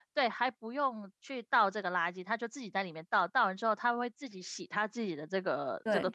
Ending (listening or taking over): taking over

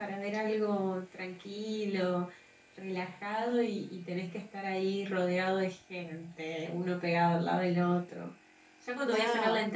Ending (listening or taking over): listening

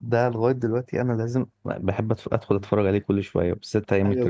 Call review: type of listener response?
taking over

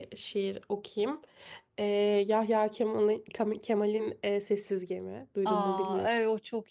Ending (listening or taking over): taking over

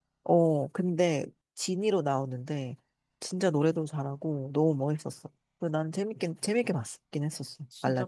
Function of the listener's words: taking over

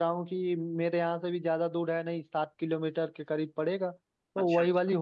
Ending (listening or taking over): listening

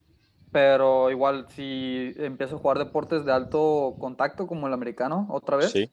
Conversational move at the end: listening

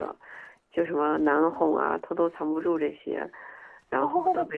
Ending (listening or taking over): listening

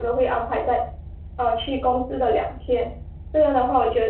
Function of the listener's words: listening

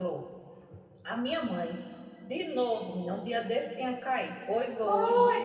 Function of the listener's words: taking over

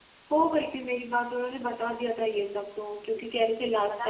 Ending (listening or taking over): listening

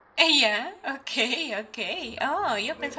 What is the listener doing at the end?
taking over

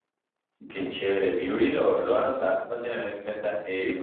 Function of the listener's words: listening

